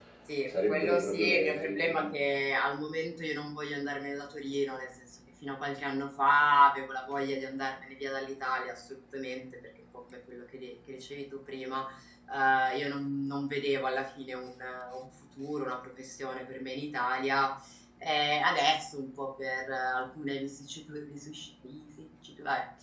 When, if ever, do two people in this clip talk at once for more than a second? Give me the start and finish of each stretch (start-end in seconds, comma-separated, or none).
0.5-1.9